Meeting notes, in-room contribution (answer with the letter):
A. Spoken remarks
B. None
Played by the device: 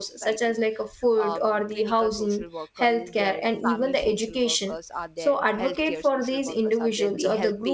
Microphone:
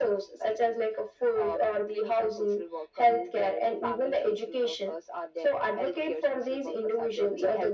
B